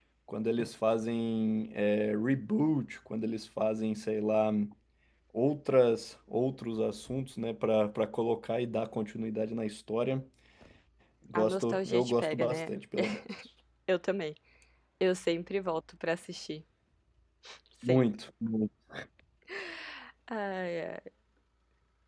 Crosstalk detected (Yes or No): Yes